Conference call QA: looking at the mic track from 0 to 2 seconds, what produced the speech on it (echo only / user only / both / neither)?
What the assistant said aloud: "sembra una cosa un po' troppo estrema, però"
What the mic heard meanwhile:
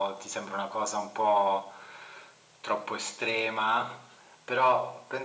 echo only